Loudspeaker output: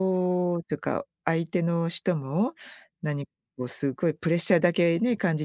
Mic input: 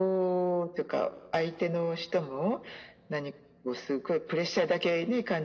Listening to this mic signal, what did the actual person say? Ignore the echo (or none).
none